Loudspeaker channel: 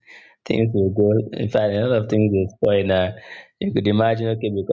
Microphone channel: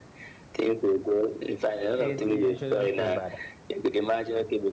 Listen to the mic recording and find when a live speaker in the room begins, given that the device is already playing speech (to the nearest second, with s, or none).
2 s